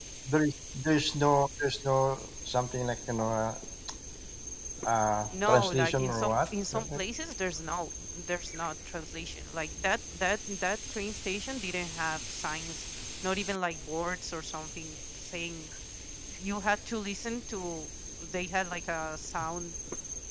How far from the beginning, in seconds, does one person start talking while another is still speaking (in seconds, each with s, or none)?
5.3 s